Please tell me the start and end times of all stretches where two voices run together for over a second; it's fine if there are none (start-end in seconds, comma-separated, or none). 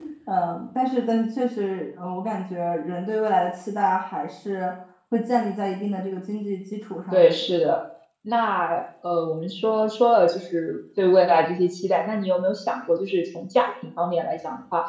none